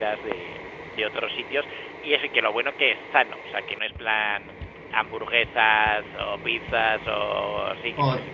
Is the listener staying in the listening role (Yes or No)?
No